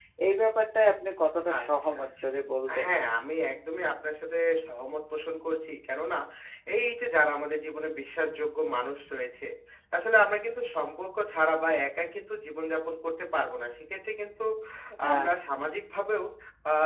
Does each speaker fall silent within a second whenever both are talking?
Yes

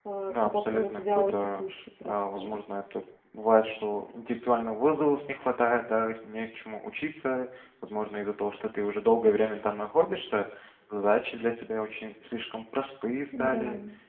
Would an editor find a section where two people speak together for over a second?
Yes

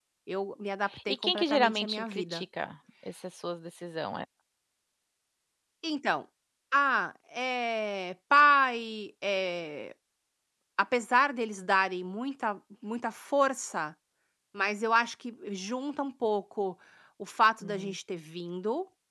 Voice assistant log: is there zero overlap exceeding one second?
No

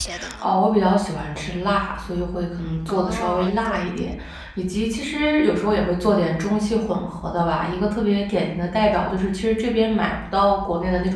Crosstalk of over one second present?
Yes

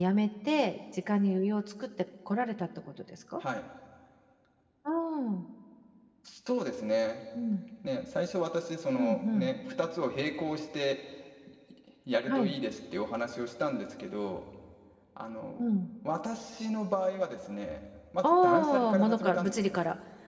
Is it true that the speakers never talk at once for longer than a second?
No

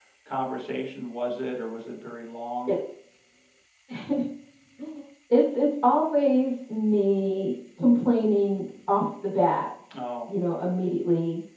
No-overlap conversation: Yes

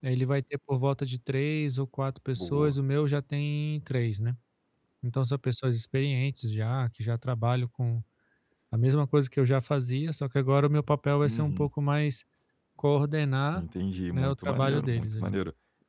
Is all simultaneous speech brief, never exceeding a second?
No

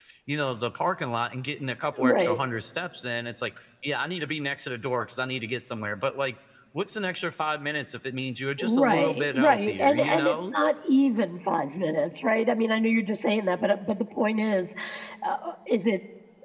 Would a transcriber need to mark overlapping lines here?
Yes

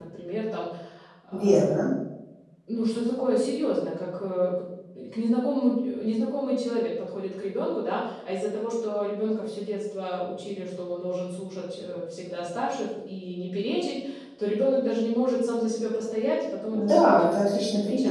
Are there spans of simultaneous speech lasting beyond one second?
Yes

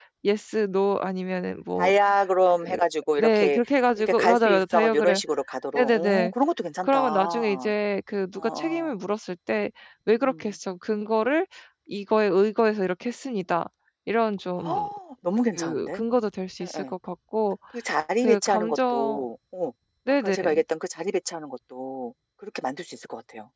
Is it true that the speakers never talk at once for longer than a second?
No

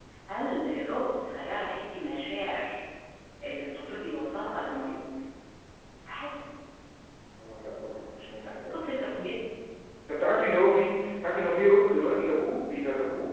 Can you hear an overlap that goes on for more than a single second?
No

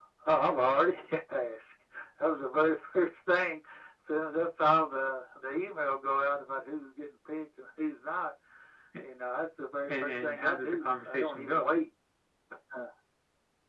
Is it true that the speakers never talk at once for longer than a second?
No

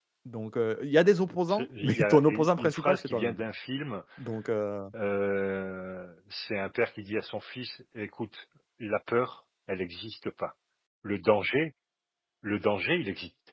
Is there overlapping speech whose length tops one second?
Yes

